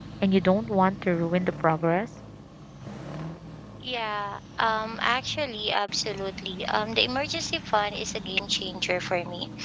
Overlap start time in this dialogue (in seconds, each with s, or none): none